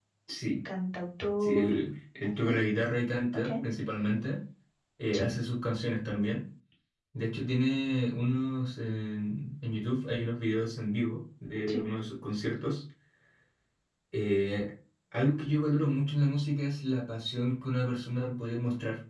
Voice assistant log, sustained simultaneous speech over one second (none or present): none